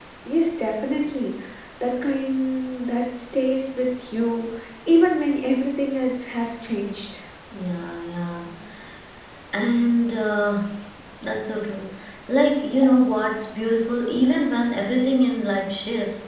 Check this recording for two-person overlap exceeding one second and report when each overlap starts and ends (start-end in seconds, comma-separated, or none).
none